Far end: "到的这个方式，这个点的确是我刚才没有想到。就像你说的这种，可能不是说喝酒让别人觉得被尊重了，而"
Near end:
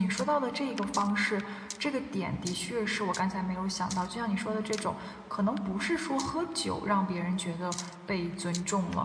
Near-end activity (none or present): none